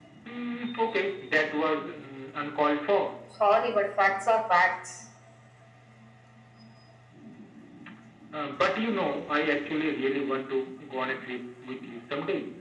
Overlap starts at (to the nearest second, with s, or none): none